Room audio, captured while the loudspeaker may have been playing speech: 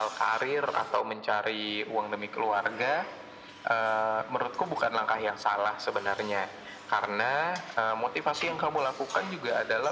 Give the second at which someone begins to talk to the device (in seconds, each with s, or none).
none